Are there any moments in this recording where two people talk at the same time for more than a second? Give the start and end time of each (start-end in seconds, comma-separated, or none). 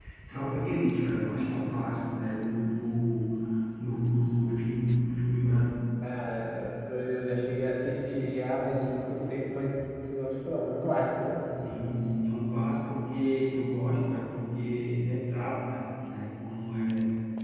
none